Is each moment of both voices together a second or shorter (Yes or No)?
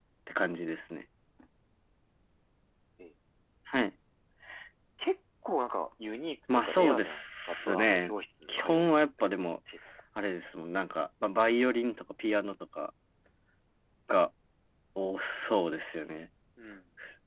No